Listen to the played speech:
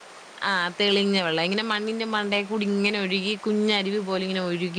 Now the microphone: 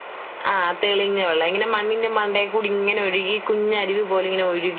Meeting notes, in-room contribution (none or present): none